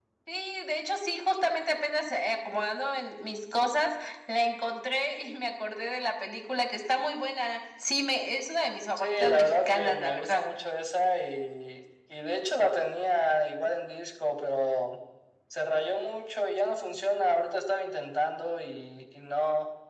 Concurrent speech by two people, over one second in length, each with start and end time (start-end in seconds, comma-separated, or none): 9.0-10.4